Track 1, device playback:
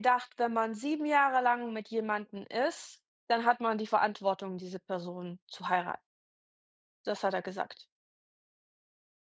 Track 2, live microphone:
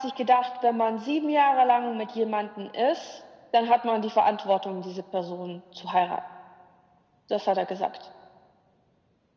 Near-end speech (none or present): none